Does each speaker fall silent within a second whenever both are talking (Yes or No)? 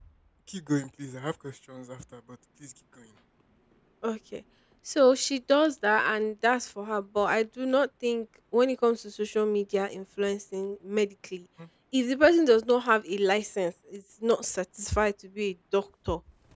Yes